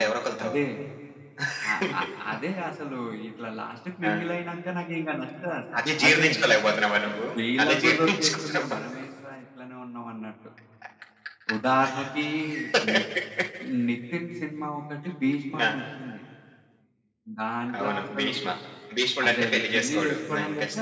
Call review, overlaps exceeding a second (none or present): present